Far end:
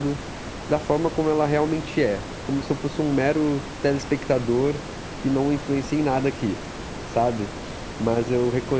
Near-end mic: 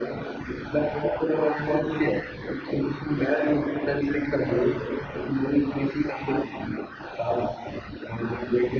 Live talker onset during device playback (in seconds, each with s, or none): none